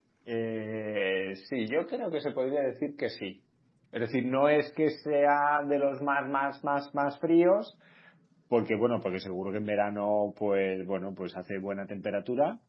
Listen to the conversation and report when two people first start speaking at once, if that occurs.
none

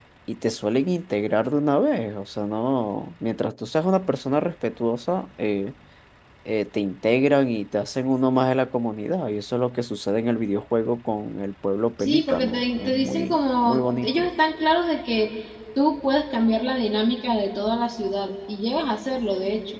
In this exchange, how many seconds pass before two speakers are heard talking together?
12.0 s

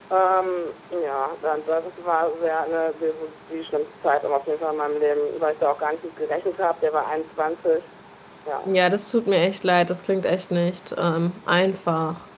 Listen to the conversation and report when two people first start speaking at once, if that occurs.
none

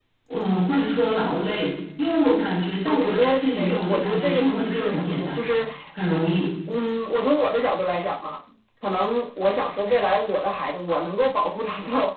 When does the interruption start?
2.9 s

